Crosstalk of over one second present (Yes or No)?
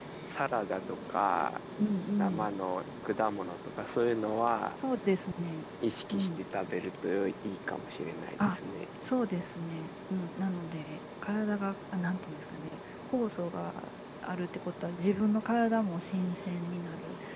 No